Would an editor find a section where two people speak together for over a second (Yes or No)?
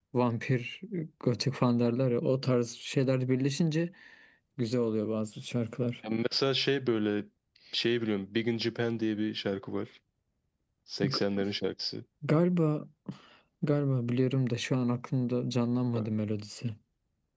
No